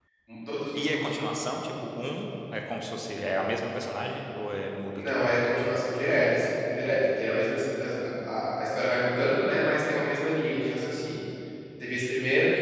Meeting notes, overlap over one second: none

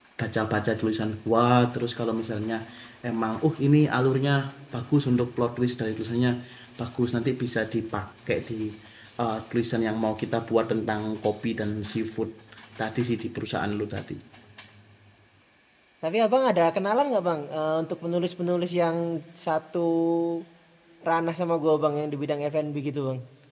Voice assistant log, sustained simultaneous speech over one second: none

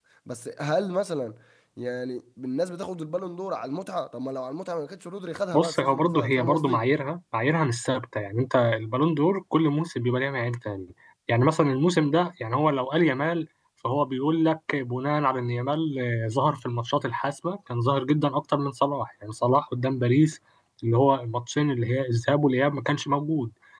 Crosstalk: present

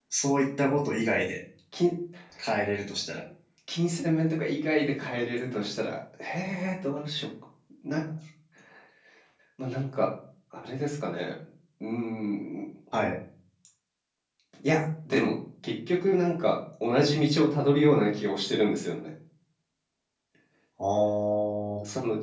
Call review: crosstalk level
none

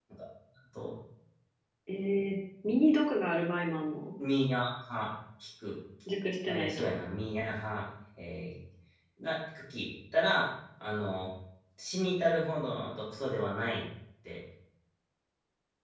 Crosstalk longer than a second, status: none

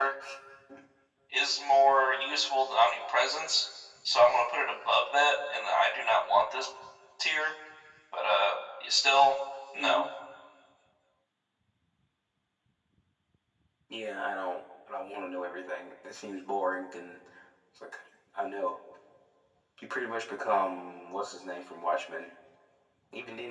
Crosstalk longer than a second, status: none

